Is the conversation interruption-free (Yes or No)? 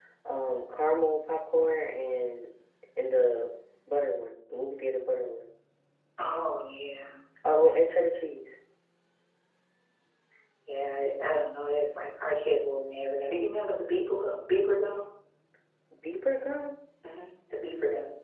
Yes